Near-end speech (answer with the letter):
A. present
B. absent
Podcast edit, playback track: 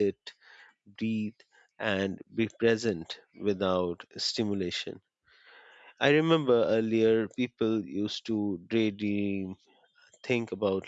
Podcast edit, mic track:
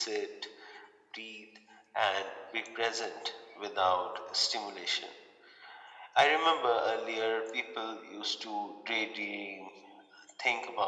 B